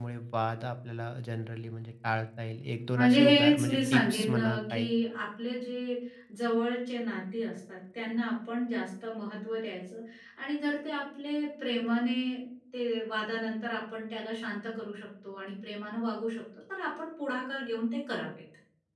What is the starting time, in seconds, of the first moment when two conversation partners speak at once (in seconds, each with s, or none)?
3.0 s